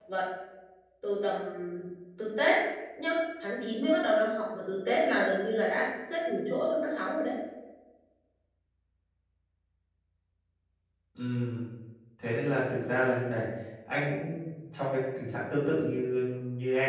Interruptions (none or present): none